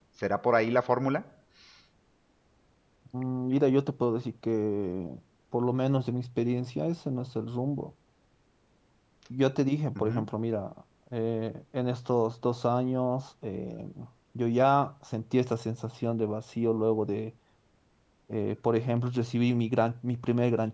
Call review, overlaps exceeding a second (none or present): none